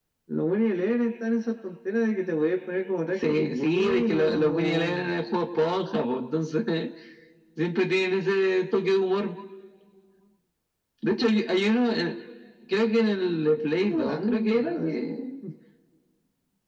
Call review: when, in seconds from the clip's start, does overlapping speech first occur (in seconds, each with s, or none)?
3.3 s